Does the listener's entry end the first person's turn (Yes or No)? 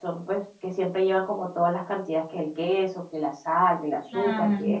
No